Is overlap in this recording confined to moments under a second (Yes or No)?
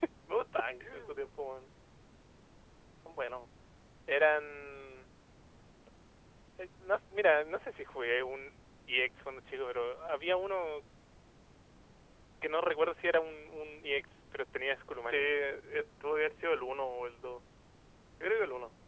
Yes